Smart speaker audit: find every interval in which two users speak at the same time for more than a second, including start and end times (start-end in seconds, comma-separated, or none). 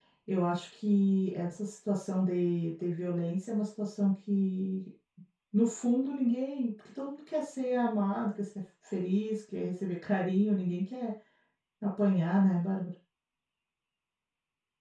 none